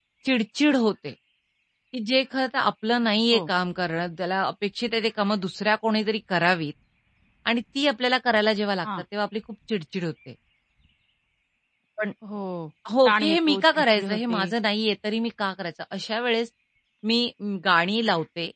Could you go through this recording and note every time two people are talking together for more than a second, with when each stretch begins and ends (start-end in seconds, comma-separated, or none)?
13.0-14.5